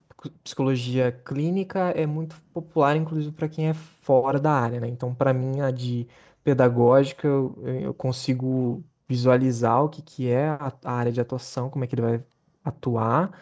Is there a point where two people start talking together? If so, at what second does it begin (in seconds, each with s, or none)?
none